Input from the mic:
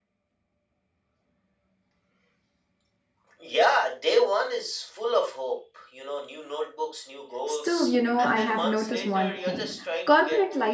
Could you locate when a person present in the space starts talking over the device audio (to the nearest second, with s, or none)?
7 s